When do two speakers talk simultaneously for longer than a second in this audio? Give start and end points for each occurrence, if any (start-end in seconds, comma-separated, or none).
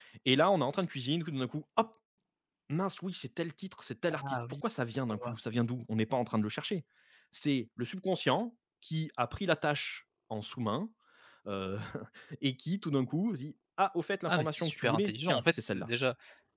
14.3-15.9